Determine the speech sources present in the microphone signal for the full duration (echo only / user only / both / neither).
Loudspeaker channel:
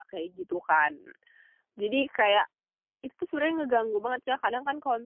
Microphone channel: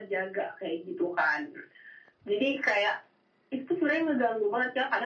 echo only